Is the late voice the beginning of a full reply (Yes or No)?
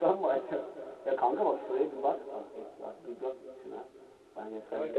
Yes